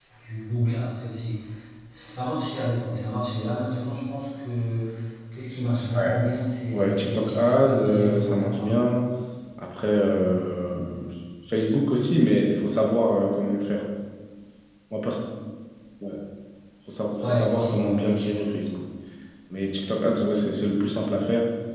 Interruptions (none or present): present